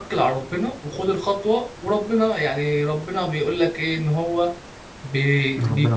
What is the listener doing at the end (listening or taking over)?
listening